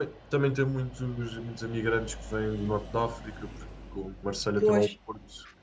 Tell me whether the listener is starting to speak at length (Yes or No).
No